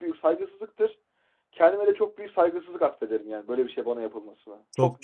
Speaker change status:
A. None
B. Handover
B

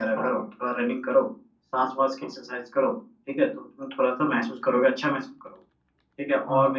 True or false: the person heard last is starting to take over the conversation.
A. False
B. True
A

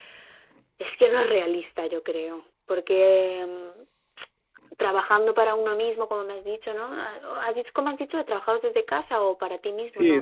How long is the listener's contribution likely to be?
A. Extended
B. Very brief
A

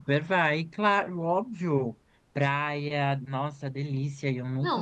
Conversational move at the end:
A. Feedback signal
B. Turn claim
B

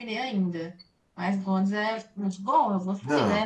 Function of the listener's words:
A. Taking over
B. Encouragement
B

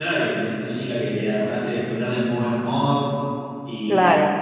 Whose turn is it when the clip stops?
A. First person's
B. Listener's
B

